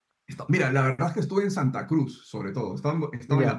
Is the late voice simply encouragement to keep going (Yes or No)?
Yes